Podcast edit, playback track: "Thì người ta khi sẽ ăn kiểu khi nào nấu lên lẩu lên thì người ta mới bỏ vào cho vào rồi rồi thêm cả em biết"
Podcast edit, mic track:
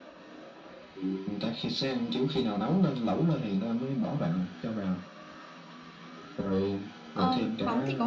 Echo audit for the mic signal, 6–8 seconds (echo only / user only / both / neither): both